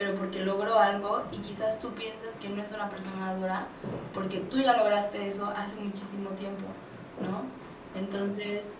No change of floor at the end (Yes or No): Yes